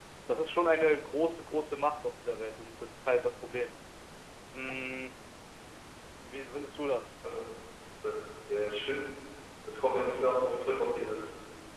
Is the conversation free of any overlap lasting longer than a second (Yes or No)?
Yes